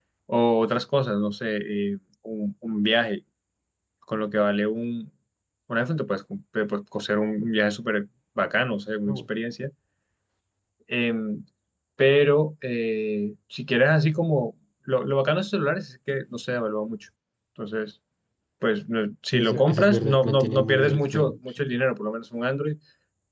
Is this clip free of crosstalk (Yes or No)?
No